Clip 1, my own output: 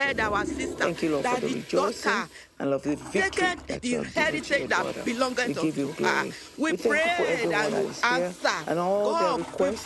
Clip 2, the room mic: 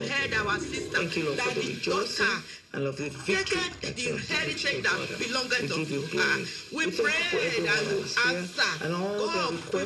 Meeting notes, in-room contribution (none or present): none